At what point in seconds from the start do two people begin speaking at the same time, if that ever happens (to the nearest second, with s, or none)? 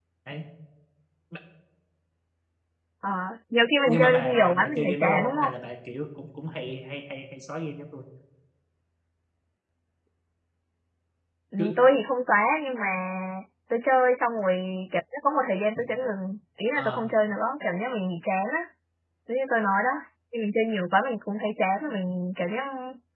4 s